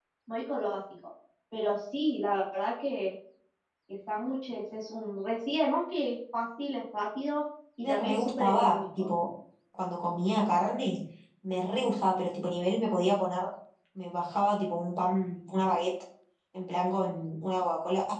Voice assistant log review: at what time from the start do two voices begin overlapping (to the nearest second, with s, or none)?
8 s